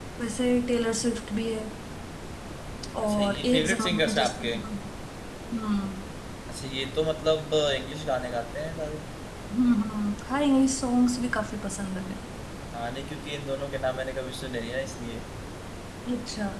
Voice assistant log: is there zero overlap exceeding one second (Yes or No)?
No